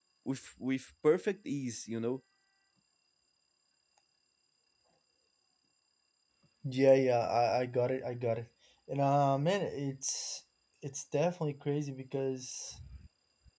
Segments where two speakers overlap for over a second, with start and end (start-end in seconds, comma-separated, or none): none